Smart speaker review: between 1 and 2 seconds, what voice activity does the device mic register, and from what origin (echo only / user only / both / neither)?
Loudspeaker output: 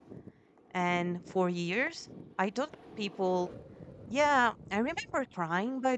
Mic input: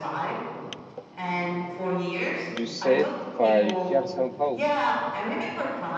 echo only